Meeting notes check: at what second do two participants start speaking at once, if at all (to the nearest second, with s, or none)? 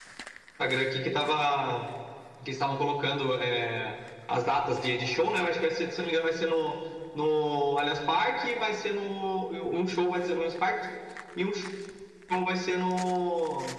none